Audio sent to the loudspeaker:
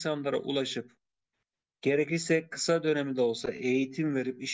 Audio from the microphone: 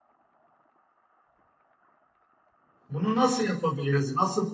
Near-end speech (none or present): present